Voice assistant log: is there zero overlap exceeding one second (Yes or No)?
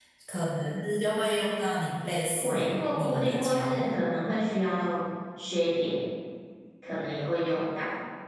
No